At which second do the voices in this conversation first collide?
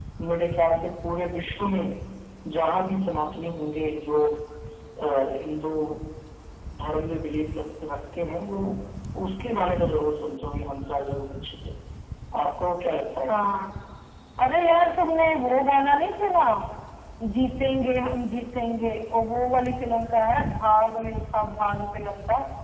none

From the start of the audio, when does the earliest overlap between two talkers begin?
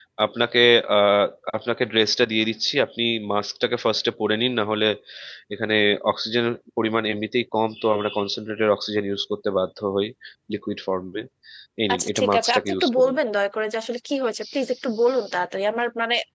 11.9 s

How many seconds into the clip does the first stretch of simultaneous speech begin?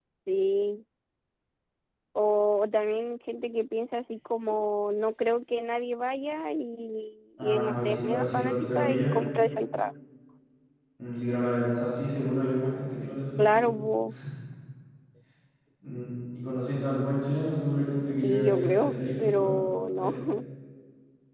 7.4 s

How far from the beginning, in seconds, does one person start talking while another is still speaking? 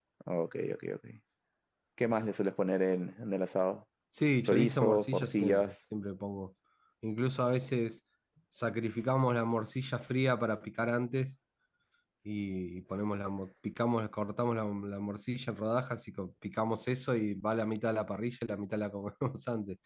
4.4 s

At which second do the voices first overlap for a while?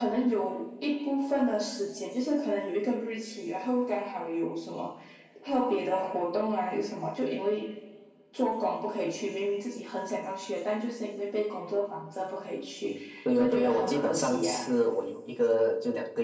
13.4 s

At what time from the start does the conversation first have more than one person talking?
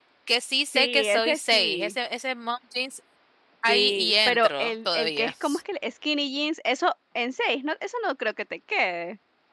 0.7 s

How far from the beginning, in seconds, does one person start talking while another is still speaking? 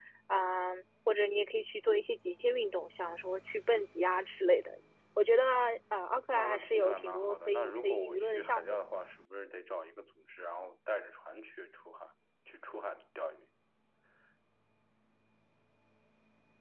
6.3 s

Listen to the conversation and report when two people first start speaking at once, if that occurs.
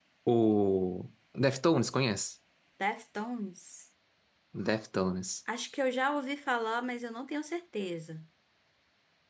none

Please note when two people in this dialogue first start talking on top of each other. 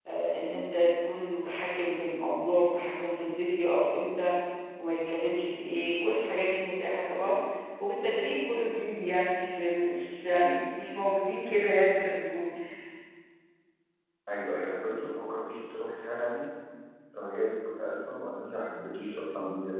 none

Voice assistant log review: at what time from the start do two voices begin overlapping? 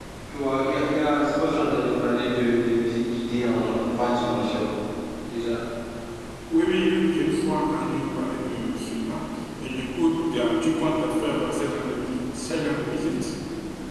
none

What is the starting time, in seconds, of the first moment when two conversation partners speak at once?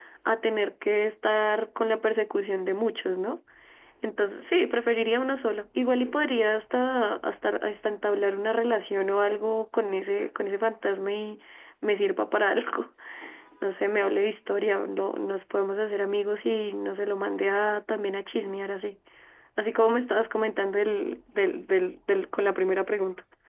none

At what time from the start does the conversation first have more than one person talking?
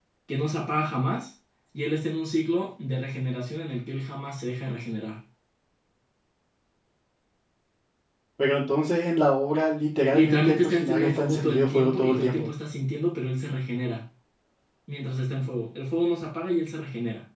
10.1 s

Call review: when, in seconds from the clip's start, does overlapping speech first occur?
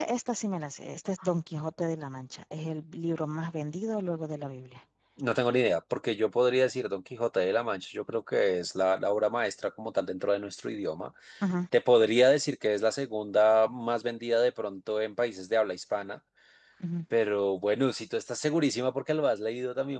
none

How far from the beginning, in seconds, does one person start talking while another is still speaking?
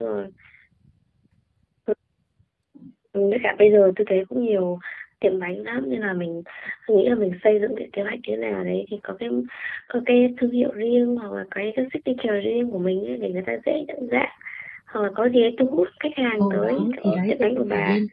16.4 s

